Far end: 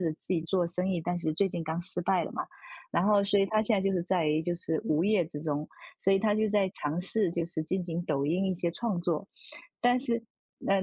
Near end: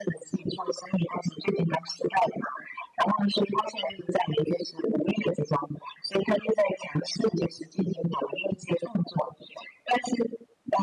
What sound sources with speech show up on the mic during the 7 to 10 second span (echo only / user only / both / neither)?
echo only